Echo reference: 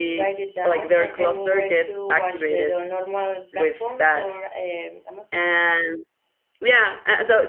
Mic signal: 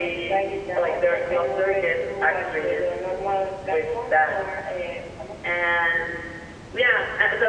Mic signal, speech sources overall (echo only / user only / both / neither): echo only